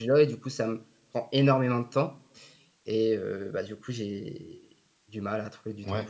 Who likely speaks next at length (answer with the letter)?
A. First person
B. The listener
B